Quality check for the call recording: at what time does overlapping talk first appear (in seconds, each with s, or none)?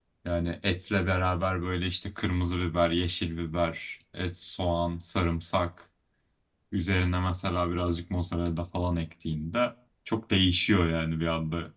none